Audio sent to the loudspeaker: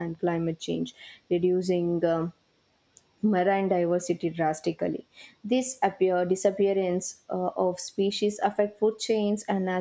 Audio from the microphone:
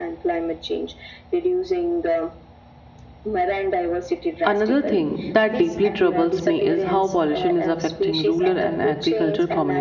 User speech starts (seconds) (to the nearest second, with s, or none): 4 s